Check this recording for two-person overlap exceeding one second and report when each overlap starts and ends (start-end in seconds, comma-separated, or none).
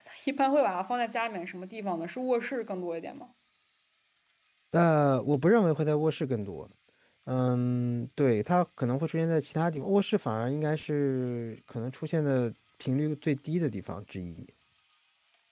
none